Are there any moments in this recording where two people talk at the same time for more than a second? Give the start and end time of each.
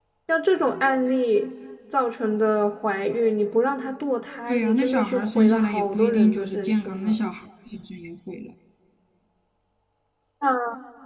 4.5-7.2

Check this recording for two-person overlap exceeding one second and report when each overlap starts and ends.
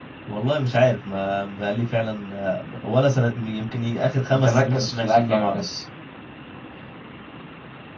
4.3-5.6

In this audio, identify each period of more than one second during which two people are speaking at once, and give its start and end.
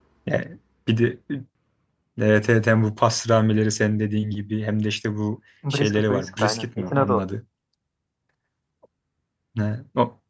5.7-7.2

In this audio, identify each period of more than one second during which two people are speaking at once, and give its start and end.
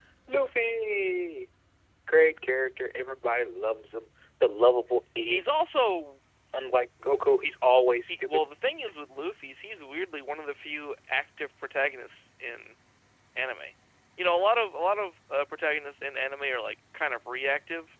none

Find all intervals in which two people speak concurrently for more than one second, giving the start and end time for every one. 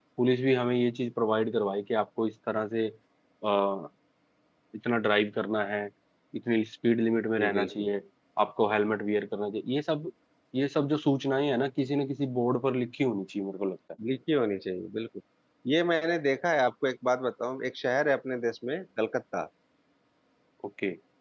none

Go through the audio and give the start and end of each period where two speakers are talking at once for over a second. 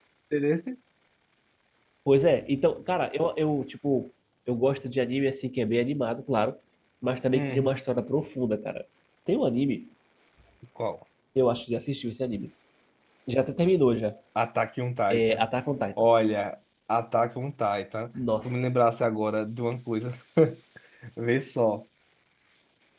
none

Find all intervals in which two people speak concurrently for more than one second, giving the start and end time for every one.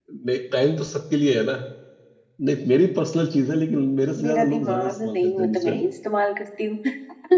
4.2-5.8

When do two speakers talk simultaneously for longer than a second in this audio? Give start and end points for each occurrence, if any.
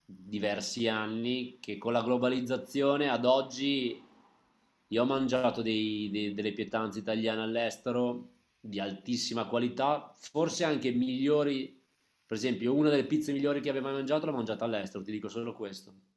none

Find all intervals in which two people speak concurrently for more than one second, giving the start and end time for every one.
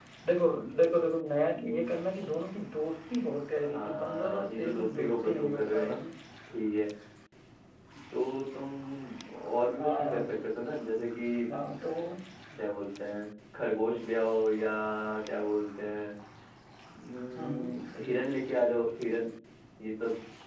3.7-6.0

